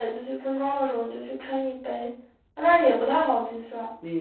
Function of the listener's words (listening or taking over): taking over